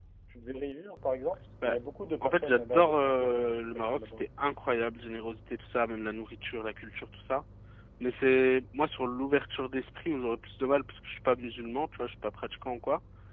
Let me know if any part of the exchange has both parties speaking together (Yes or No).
Yes